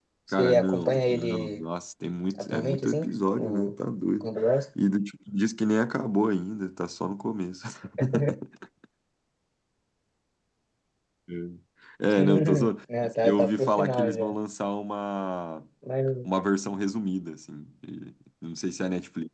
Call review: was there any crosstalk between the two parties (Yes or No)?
Yes